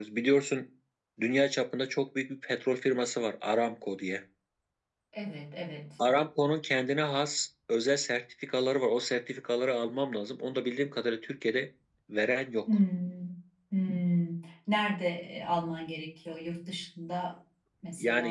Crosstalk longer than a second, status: none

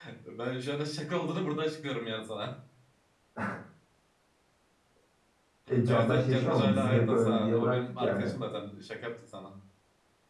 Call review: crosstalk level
present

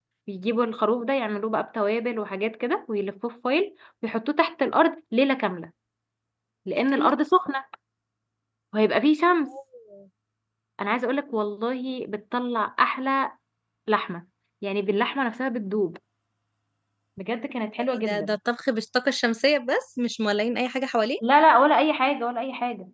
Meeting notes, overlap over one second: none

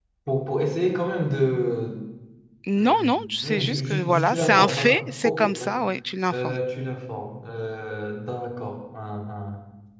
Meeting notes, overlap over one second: present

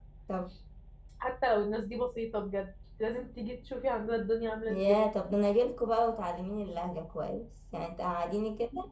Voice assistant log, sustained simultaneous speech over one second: none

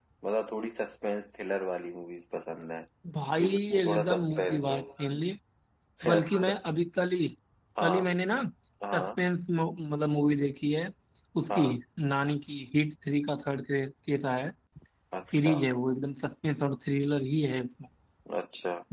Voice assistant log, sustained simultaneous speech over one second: present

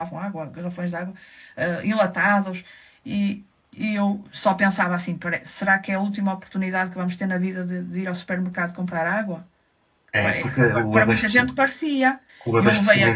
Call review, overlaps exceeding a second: present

